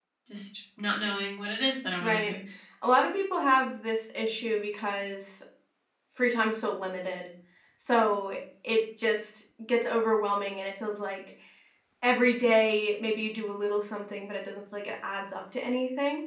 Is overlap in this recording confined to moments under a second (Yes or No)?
Yes